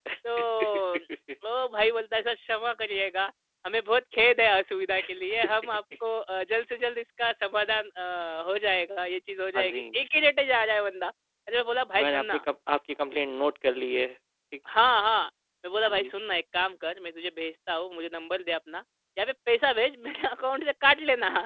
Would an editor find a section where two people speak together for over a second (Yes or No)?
No